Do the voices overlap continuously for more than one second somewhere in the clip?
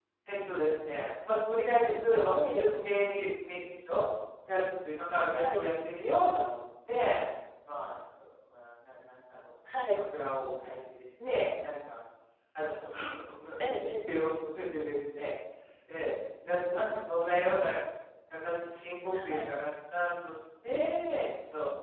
No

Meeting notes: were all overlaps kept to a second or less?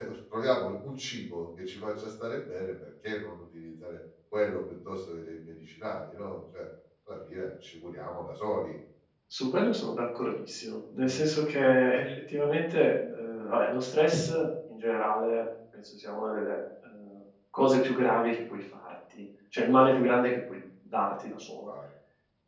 Yes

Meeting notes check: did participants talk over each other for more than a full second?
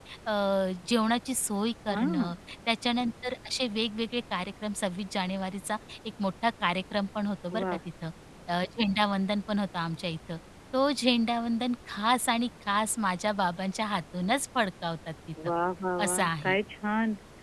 No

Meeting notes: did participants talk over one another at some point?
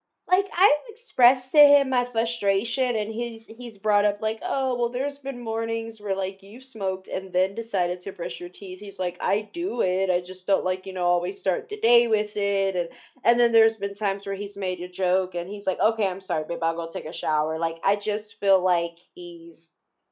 No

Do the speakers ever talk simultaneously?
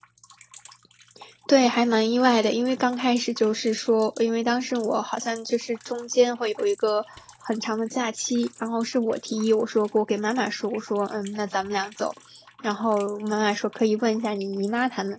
No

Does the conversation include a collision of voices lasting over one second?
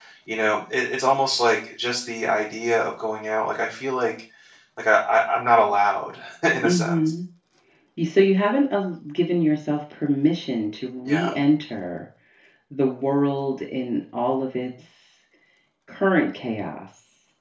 No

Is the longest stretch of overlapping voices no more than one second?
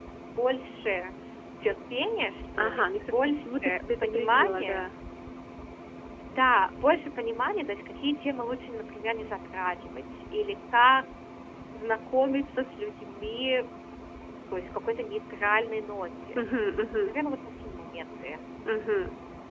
No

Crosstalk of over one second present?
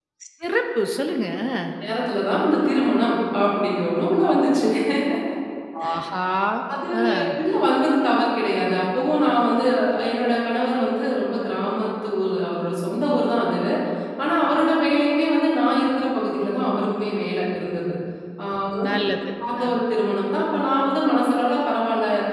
No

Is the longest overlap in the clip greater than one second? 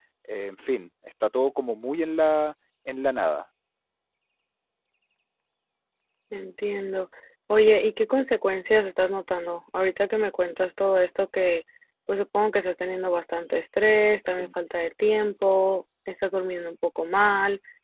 No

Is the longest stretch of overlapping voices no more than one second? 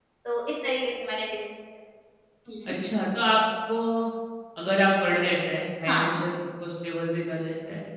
Yes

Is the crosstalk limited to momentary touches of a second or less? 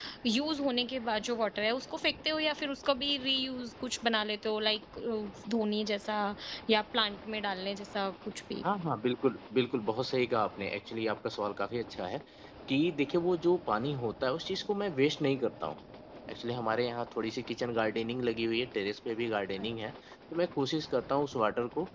Yes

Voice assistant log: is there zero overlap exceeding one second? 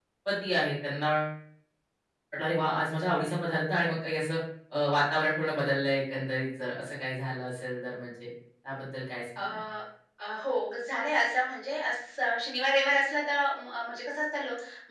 Yes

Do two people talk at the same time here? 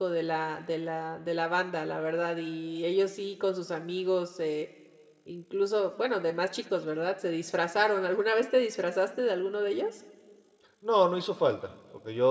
No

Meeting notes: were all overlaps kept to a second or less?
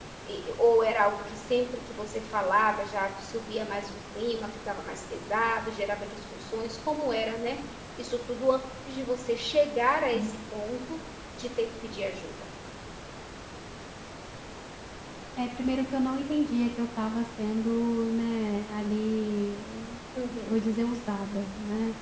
Yes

